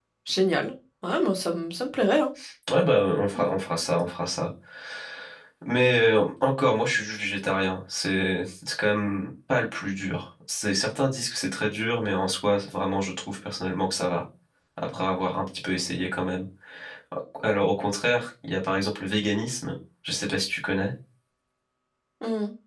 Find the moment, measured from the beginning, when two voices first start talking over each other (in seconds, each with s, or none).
none